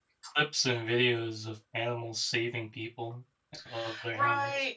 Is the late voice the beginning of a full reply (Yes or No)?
Yes